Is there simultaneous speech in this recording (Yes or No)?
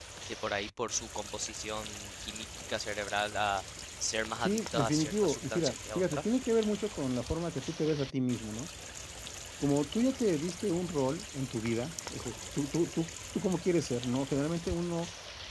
Yes